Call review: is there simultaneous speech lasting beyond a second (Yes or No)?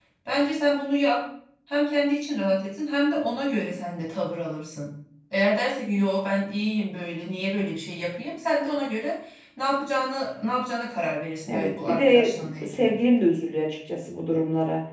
Yes